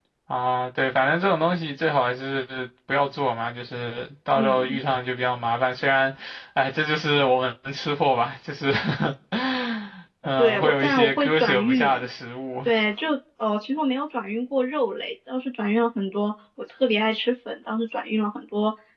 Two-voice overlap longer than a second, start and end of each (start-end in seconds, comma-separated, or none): 10.4-12.0